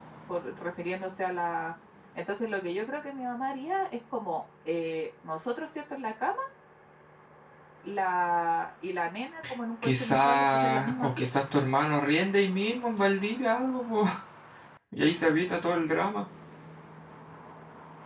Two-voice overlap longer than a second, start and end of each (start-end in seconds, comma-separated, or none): 9.8-11.3